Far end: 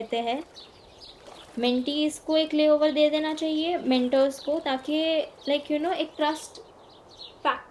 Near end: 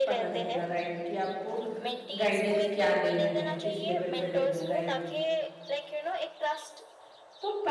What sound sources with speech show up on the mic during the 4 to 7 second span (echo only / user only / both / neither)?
both